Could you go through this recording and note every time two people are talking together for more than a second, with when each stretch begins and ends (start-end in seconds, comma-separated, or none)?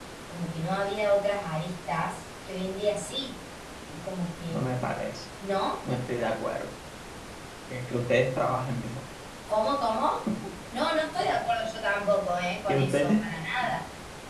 none